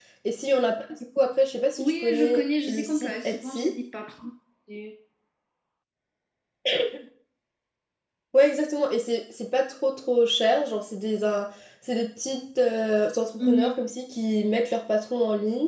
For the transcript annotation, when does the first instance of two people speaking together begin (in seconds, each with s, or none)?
1.8 s